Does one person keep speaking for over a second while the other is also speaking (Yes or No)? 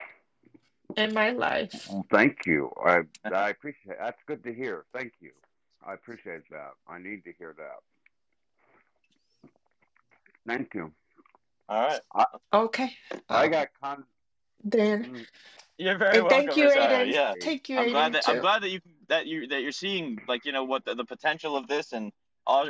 Yes